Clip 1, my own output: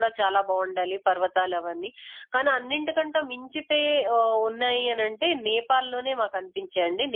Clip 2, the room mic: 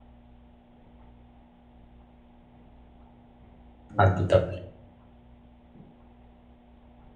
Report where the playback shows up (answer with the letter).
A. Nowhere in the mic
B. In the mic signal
A